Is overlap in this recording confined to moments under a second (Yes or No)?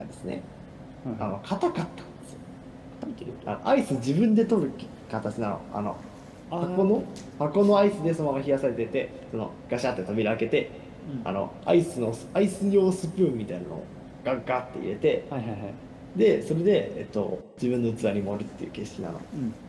Yes